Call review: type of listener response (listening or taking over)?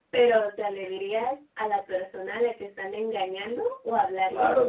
taking over